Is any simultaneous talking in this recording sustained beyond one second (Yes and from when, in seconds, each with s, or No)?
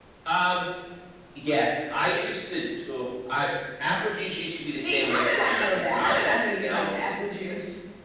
Yes, from 4.7 s